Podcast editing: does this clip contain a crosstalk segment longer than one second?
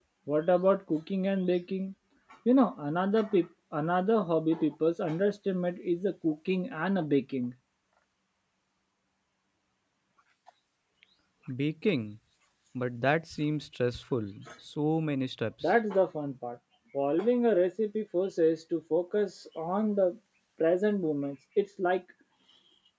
No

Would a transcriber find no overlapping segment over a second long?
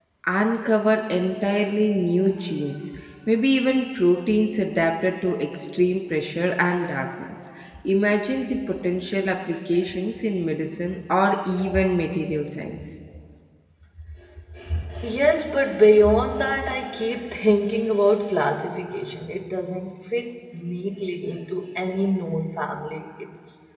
Yes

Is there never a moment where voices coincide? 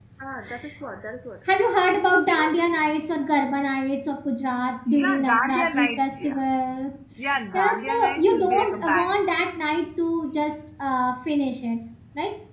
No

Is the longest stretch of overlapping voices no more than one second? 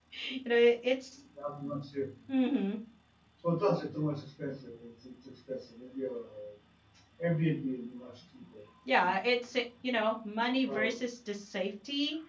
Yes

